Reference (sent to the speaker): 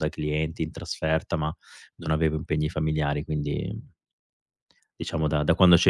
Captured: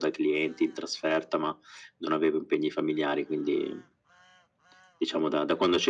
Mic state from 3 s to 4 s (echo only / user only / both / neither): echo only